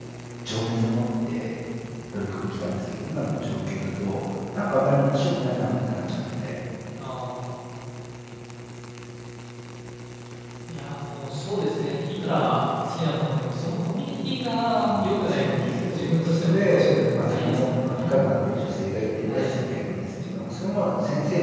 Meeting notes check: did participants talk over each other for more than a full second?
Yes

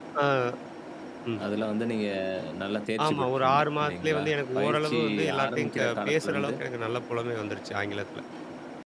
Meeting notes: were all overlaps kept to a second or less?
No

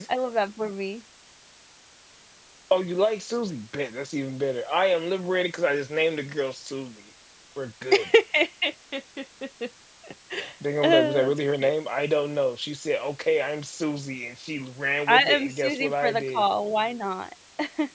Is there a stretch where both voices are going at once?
Yes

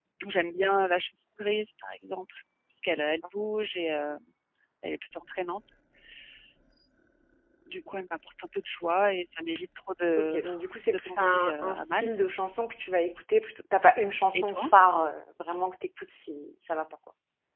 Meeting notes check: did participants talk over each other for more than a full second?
Yes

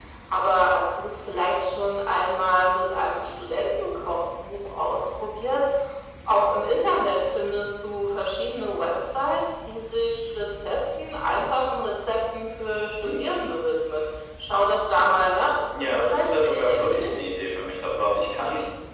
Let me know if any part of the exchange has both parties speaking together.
Yes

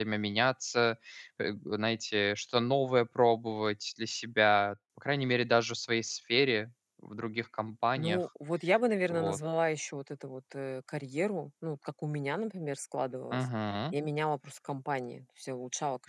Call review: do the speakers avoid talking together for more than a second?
Yes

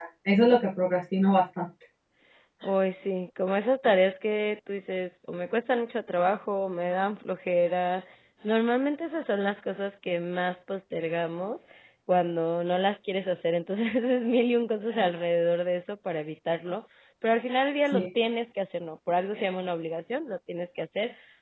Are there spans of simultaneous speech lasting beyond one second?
No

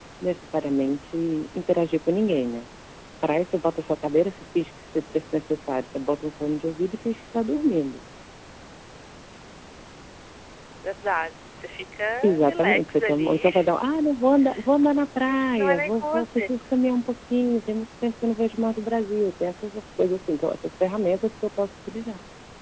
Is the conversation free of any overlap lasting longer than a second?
No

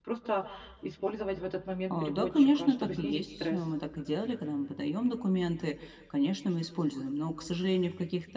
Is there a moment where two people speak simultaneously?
Yes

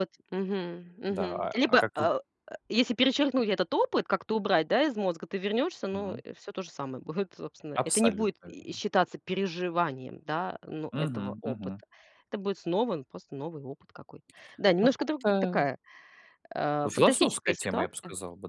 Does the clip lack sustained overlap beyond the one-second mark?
No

